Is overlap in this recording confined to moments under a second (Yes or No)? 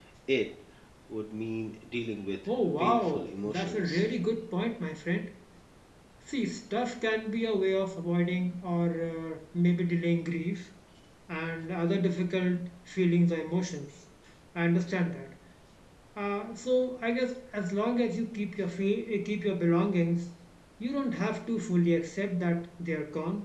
No